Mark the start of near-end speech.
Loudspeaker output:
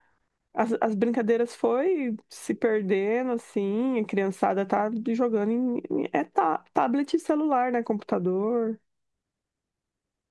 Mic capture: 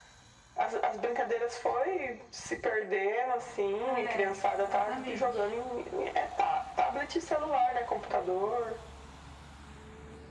4 s

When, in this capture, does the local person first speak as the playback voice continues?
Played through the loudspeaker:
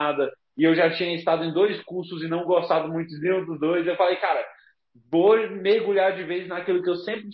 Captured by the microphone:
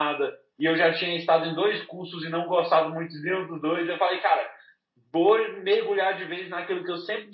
none

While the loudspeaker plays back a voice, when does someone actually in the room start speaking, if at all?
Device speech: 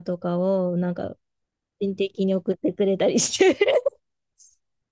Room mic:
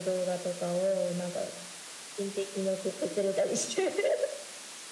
none

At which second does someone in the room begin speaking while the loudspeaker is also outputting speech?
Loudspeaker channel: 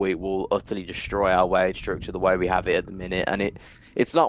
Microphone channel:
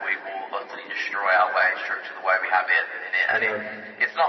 3 s

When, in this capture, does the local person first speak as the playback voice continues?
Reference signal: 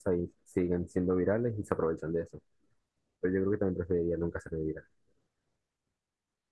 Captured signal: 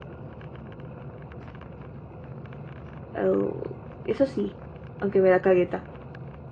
3 s

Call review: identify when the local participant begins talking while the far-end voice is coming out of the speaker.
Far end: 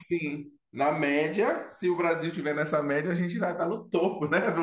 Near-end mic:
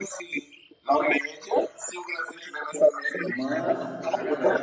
3 s

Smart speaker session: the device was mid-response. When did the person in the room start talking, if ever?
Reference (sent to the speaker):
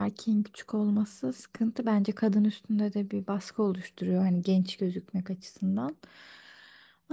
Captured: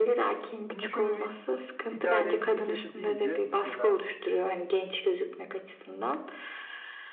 1 s

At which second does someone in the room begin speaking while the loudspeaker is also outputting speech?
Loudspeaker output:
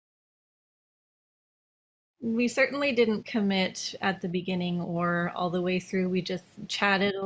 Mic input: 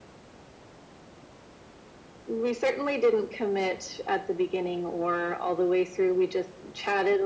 none

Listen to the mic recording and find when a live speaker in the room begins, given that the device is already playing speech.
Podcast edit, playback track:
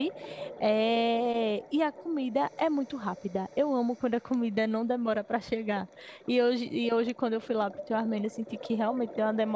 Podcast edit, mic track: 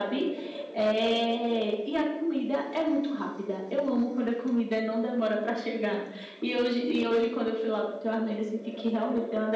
none

